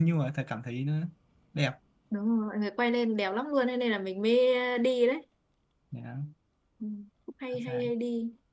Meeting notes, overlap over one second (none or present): none